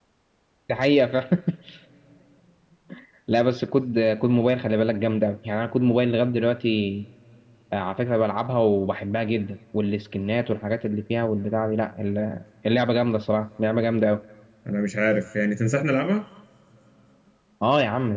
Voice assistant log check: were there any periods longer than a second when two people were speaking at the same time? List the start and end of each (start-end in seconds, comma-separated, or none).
none